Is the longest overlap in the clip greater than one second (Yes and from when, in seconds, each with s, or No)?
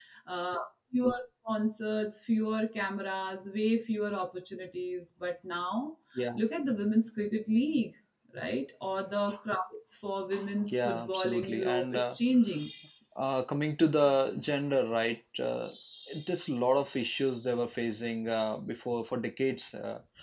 Yes, from 10.7 s